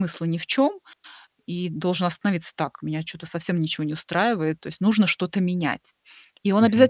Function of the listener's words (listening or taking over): listening